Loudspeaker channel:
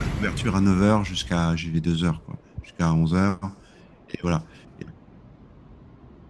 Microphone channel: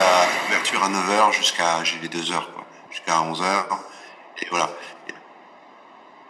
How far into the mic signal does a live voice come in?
none

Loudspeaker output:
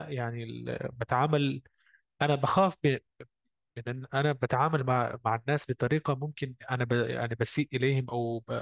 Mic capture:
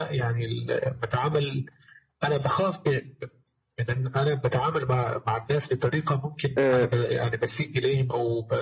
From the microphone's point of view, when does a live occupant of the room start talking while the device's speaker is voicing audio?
6.6 s

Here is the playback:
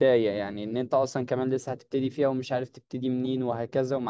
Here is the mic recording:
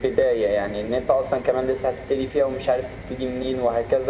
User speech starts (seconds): none

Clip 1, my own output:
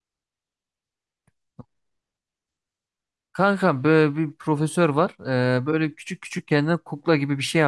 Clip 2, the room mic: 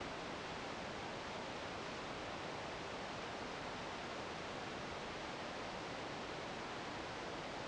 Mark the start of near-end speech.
none

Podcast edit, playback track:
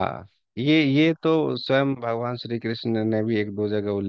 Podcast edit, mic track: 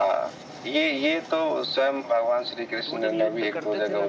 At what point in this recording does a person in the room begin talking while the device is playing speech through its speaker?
2.8 s

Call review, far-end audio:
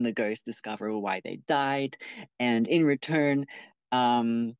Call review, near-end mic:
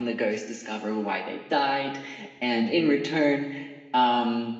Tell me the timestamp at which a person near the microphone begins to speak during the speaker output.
none

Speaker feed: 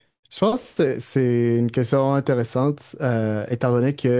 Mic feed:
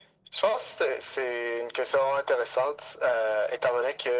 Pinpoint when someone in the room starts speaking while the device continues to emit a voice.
none

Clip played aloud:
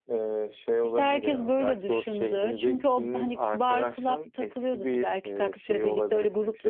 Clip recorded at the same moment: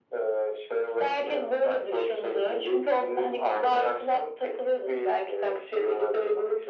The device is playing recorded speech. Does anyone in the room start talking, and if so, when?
none

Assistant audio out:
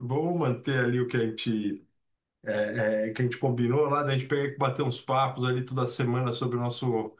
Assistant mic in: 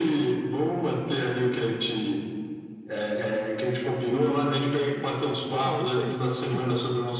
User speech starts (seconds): 4.1 s

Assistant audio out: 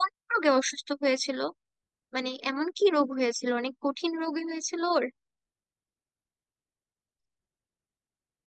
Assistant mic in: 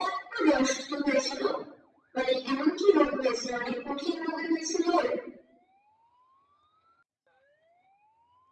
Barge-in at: none

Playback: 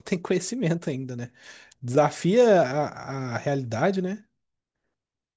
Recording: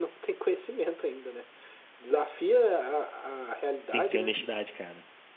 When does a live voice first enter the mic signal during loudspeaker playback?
3.9 s

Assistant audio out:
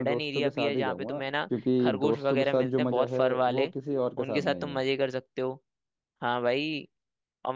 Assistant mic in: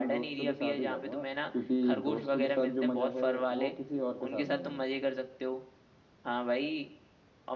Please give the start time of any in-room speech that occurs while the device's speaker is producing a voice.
none

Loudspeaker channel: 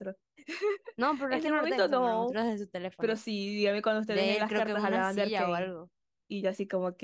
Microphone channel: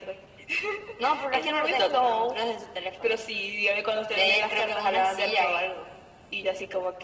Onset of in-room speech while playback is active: none

